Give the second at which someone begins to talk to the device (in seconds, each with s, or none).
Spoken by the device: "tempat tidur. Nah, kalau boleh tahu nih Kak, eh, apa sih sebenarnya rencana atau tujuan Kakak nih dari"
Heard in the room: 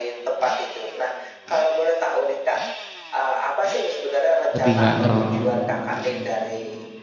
4.5 s